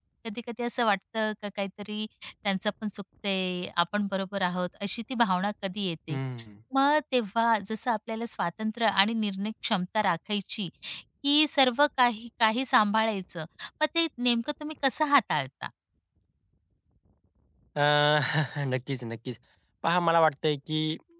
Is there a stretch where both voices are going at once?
No

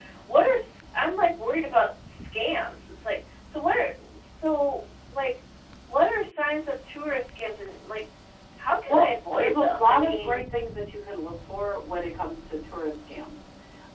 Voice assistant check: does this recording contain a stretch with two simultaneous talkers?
Yes, from 8.9 s

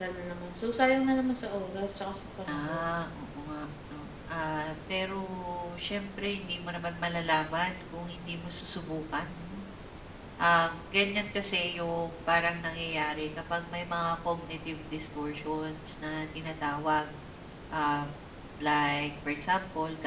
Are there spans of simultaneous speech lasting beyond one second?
No

